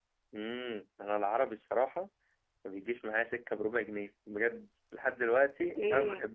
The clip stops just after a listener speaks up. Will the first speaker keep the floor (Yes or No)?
No